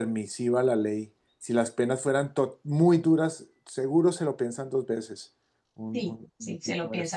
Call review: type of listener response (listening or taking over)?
taking over